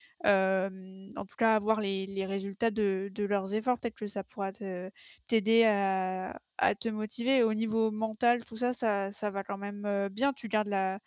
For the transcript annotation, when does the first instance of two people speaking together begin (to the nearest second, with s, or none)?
none